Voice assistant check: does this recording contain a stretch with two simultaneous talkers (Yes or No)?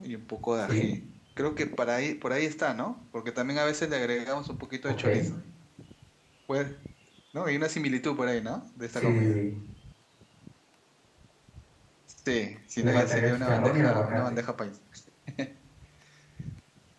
Yes